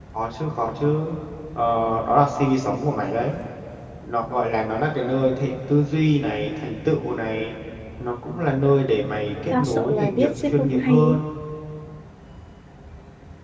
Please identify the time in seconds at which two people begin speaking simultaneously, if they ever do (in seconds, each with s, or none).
9.5 s